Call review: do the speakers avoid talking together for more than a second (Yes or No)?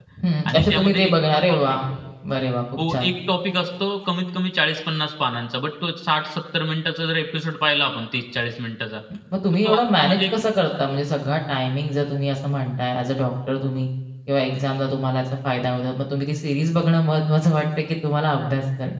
No